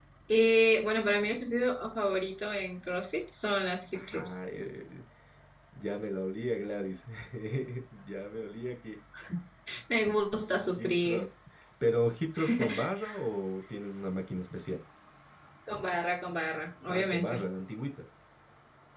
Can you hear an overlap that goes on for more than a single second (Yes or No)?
No